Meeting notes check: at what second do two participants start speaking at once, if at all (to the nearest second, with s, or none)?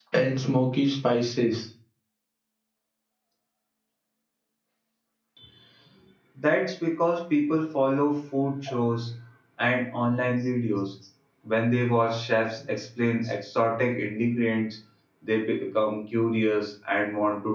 none